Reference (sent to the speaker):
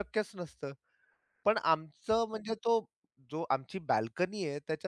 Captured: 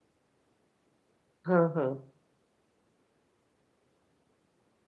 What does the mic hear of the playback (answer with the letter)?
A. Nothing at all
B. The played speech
A